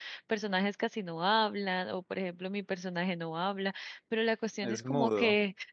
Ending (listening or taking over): listening